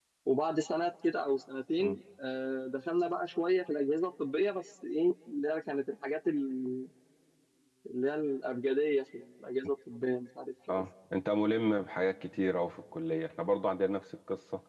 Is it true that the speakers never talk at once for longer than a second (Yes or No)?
Yes